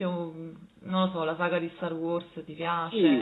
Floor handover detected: Yes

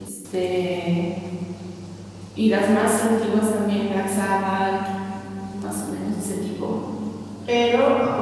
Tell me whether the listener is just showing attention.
Yes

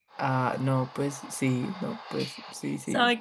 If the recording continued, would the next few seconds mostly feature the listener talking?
Yes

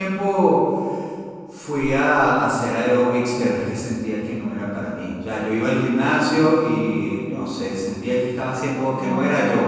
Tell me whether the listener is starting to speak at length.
No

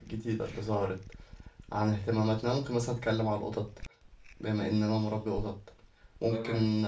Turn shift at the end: No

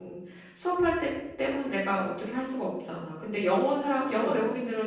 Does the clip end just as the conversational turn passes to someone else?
No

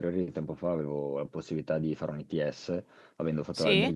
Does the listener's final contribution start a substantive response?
No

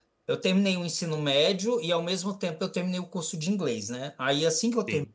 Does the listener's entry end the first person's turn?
No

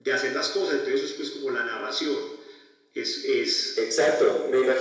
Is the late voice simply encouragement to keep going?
No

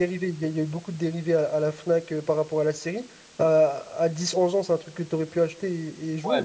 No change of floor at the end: No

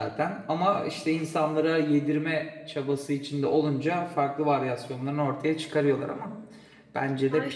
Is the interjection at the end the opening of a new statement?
Yes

